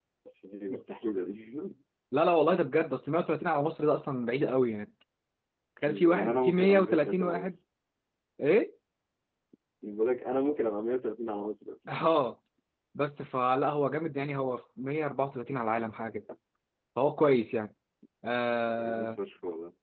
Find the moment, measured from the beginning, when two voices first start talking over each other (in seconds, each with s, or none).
5.9 s